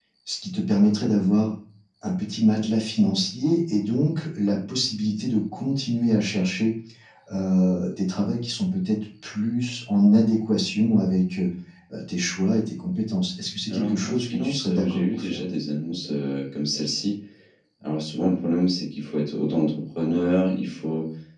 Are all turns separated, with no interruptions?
No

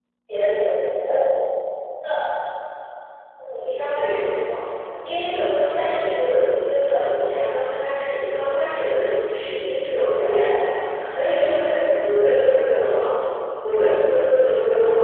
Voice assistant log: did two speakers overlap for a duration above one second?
No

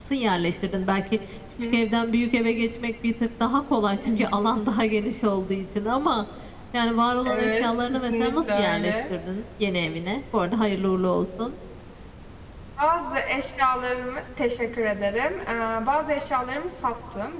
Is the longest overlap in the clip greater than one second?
Yes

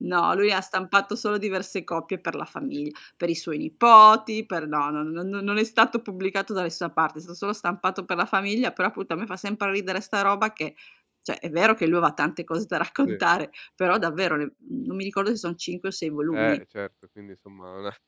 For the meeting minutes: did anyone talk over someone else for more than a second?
No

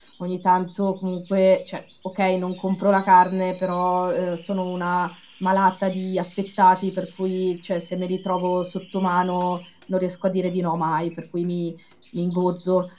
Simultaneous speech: No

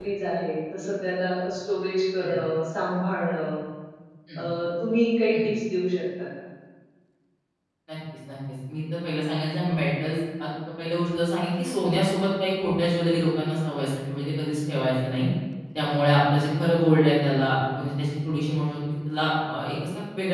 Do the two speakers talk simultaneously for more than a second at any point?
No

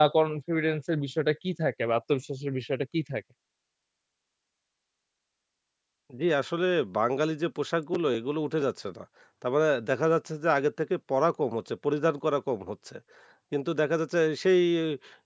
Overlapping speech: No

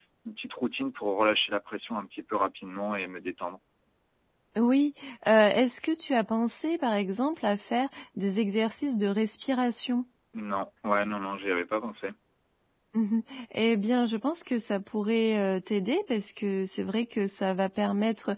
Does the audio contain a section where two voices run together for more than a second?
No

